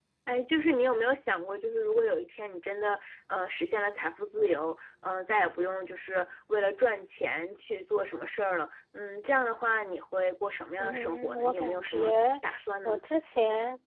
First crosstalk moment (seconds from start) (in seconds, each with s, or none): 10.8 s